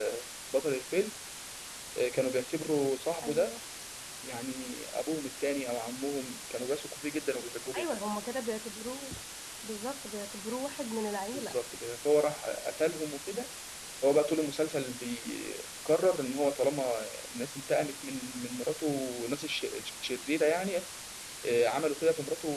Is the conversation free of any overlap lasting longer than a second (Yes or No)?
Yes